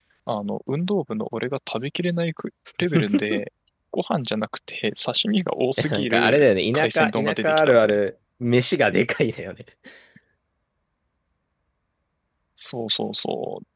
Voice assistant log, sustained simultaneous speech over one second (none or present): present